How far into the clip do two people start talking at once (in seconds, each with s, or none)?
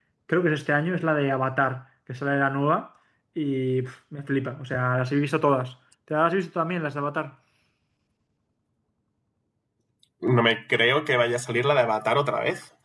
none